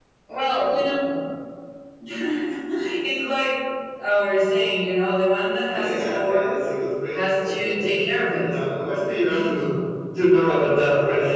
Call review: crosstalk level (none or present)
present